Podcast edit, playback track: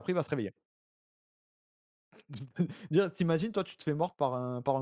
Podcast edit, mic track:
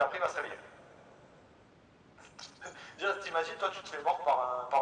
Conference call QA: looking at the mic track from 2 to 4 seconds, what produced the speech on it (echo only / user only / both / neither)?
echo only